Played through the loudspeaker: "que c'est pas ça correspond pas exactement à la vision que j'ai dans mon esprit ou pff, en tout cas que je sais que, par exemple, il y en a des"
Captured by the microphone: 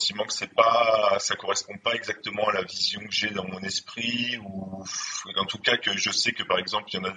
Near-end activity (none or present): none